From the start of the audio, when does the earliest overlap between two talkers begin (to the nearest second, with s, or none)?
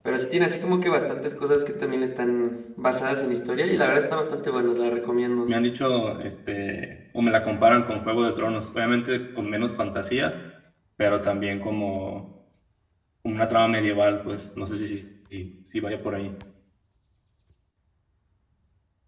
none